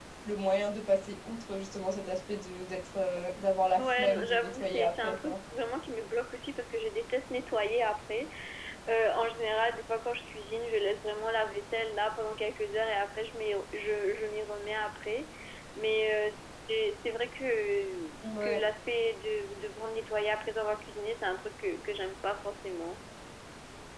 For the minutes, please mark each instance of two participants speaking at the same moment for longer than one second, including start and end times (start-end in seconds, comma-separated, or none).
3.8-5.4